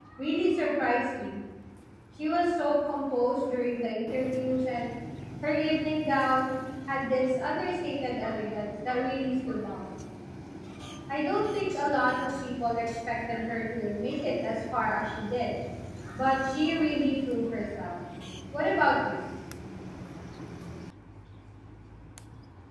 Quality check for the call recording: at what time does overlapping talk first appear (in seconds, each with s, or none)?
none